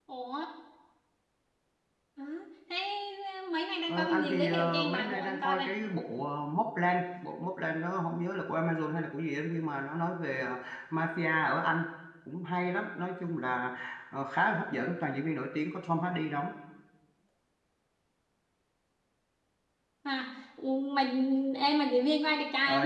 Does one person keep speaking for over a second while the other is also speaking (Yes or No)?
Yes